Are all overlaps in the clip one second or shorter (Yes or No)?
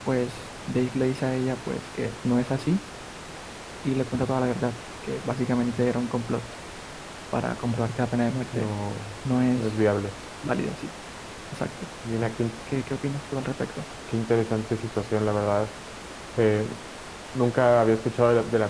Yes